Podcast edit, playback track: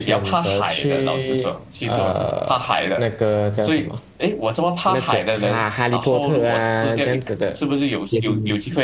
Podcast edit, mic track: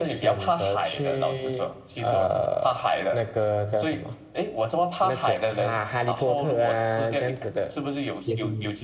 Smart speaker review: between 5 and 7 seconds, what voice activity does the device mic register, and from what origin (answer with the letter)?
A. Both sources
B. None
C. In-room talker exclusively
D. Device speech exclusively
D